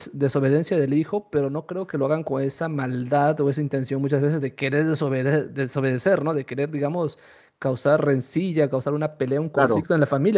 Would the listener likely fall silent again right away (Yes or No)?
Yes